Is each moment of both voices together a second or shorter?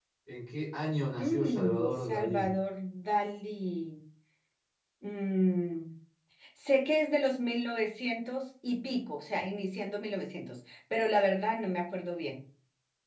No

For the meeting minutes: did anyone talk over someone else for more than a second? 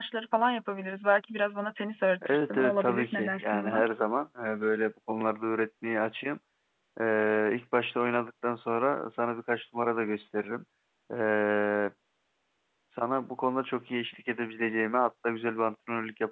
Yes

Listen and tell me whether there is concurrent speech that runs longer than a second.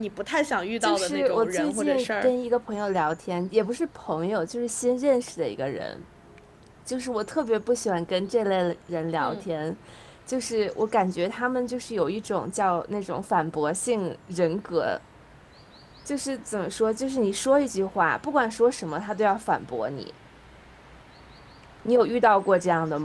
Yes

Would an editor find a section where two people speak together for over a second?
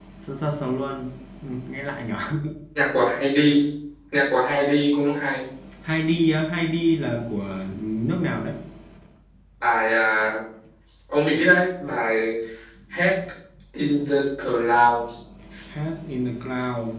No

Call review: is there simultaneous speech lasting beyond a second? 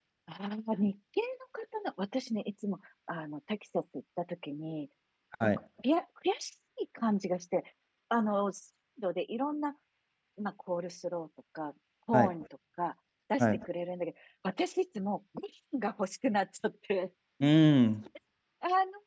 No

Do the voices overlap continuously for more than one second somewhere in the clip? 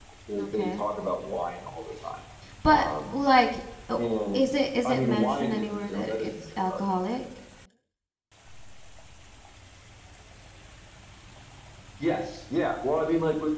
Yes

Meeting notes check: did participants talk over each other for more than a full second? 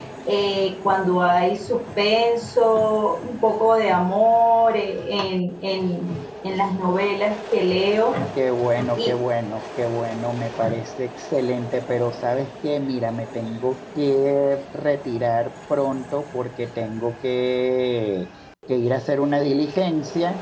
No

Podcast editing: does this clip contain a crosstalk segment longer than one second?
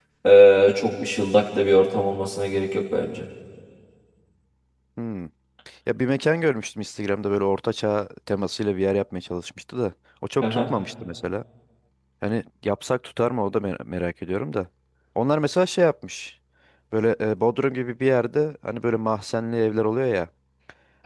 No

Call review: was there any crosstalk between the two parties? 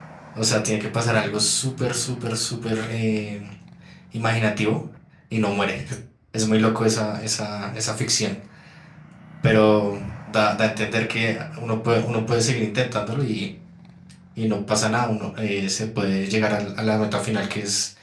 No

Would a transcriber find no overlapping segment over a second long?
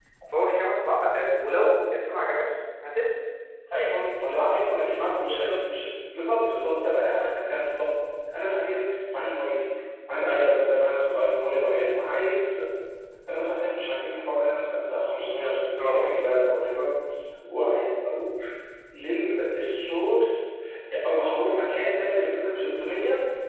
Yes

